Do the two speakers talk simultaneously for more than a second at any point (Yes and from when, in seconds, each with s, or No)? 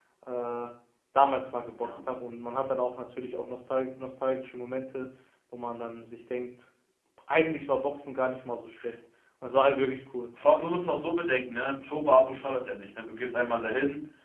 No